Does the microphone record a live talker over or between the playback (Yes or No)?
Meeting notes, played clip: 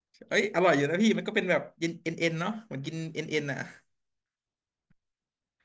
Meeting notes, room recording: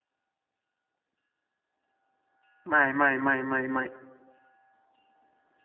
Yes